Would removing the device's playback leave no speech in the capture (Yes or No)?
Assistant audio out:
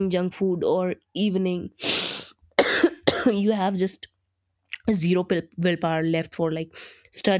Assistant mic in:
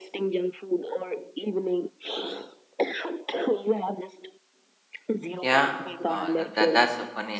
No